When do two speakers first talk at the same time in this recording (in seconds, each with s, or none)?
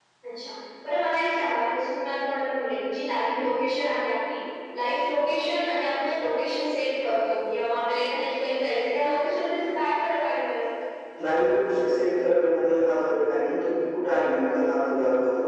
none